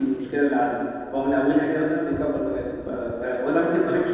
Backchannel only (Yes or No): Yes